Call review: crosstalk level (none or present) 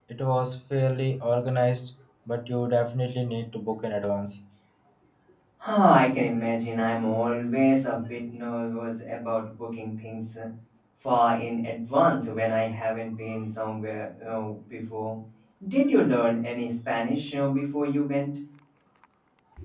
none